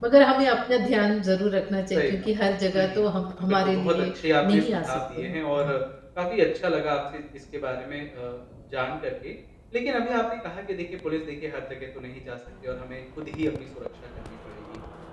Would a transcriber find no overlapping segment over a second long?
No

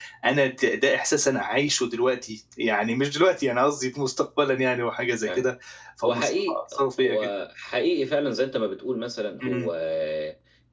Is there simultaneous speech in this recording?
Yes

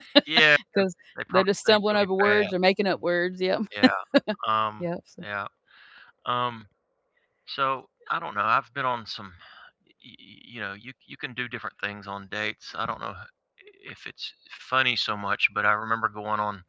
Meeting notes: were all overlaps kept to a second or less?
No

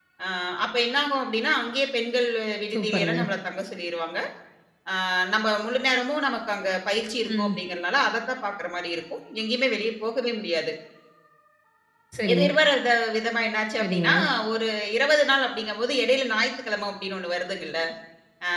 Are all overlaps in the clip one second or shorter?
Yes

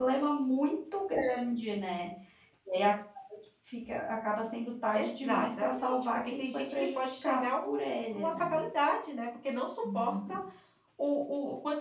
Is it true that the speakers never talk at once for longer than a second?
No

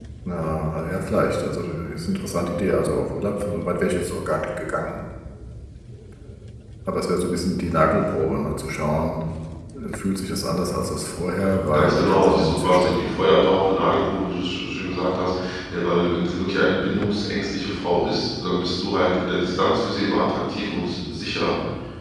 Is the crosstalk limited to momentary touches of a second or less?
No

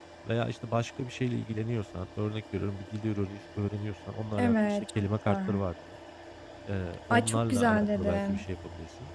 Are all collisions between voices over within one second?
No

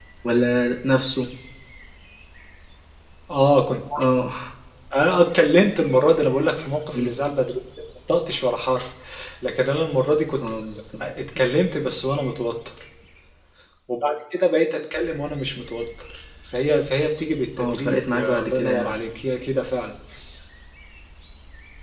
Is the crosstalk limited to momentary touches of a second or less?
No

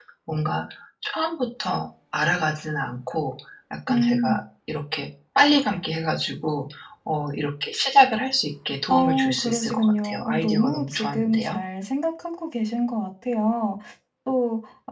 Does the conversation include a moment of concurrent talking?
Yes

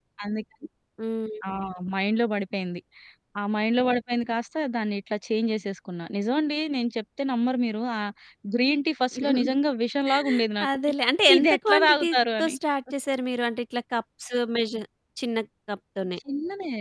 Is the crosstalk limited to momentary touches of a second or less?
No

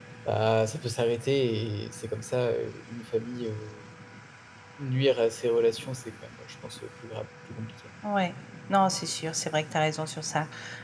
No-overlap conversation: Yes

